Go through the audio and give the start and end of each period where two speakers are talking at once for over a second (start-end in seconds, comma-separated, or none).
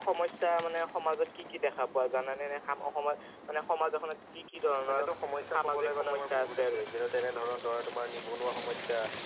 5.6-6.8